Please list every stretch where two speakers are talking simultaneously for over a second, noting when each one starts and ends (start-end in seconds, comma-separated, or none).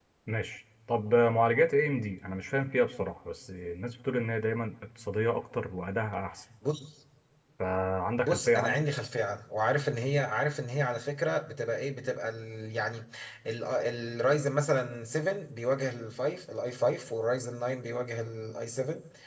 none